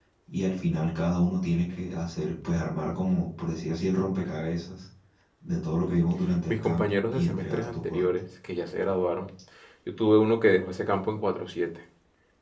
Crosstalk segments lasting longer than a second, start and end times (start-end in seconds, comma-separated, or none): 6.5-8.0